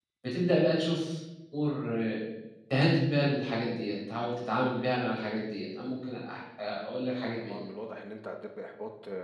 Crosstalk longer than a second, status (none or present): none